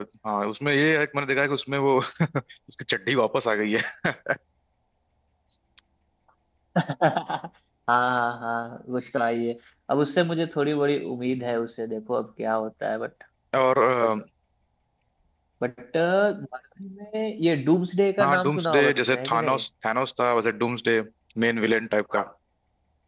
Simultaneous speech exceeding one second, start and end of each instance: 18.2-19.6

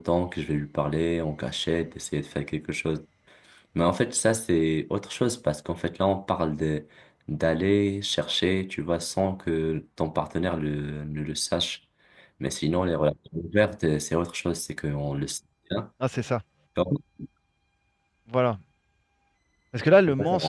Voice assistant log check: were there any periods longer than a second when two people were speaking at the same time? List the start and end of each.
none

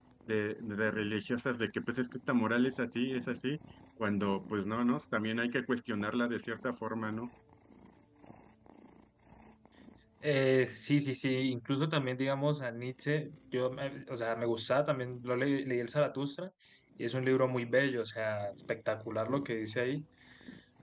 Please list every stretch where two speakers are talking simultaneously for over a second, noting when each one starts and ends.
none

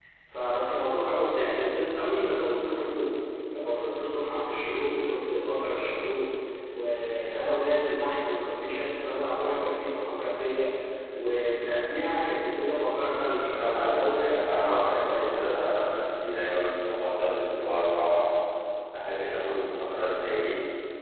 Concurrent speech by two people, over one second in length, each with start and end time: 13.4-15.3

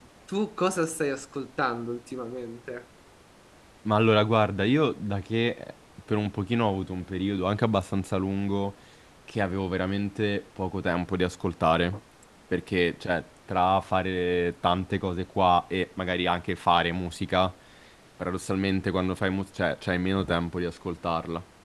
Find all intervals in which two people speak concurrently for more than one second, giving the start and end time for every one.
none

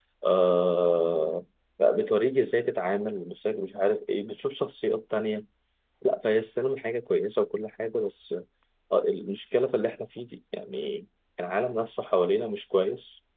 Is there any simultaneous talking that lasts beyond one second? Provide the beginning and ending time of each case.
none

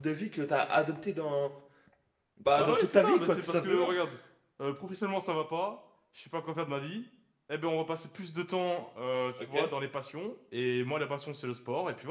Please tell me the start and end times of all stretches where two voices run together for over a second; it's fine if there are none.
2.6-3.9

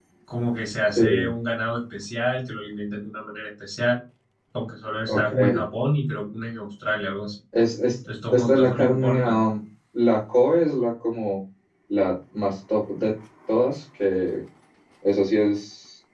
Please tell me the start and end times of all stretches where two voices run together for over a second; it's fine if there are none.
8.3-9.5

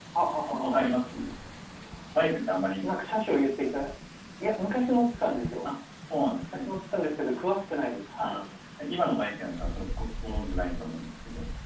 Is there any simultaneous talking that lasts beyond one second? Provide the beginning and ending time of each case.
none

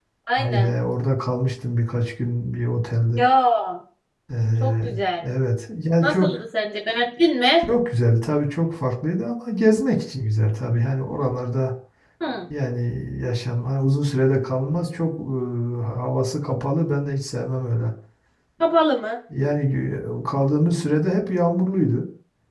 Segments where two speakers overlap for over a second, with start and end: none

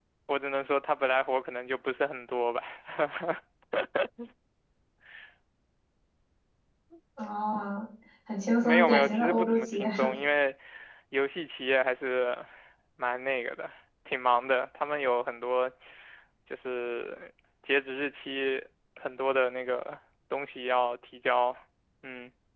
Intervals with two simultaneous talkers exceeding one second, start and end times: 8.6-10.1

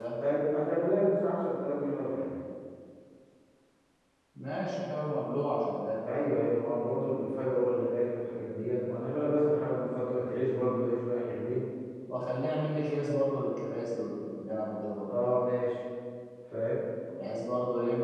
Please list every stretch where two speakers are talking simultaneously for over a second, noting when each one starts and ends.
none

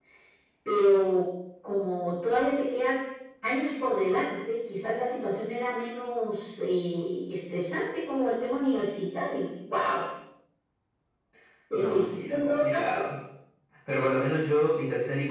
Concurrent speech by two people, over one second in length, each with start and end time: 11.7-13.0

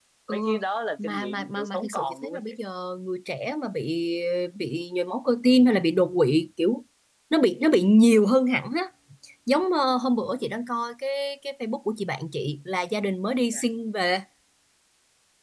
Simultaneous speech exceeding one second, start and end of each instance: 1.0-2.5

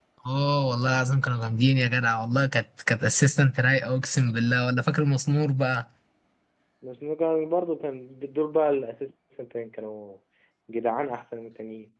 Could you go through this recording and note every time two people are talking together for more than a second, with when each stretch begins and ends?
none

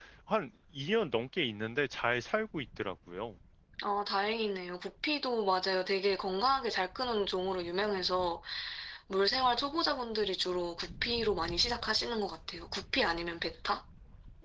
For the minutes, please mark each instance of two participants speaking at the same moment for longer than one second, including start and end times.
none

